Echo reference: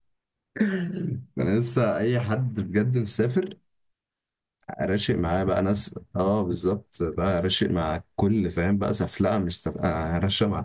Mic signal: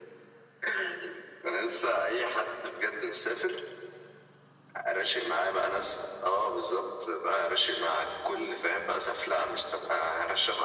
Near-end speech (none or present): none